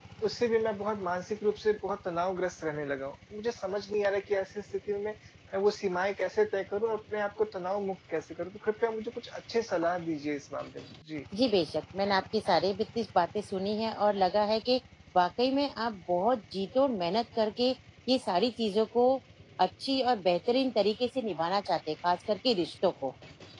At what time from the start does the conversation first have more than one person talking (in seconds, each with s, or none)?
none